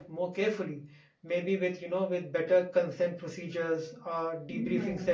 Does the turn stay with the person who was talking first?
Yes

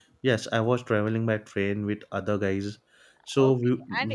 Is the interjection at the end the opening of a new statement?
Yes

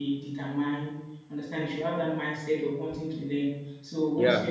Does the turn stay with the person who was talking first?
Yes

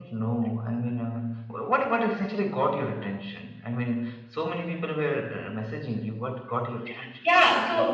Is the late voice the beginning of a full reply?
Yes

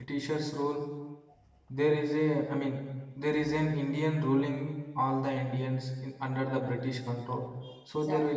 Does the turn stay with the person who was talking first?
Yes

